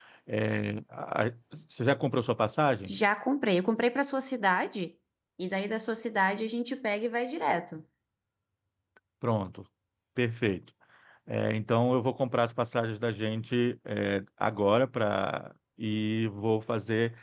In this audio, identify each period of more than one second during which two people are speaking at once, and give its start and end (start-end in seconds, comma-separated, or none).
none